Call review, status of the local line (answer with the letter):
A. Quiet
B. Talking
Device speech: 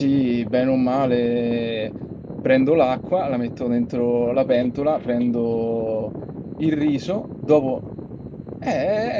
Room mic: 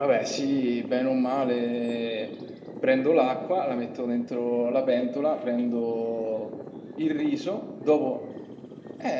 A